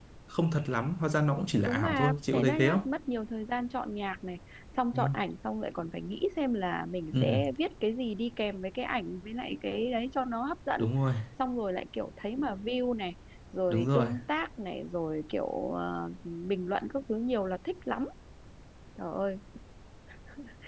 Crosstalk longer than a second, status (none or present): present